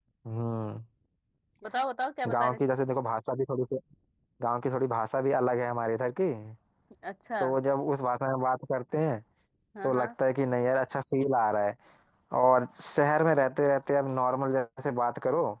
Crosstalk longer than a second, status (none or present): none